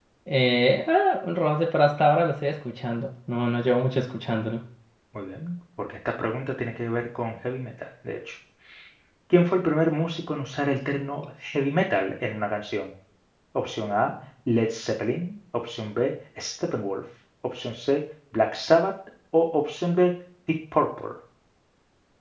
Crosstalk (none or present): none